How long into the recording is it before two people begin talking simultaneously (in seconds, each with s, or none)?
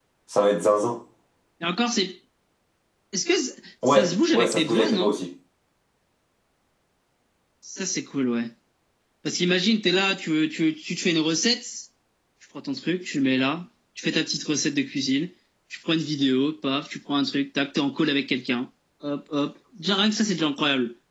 3.9 s